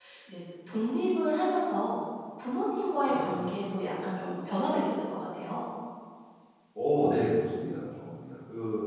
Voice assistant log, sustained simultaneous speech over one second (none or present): none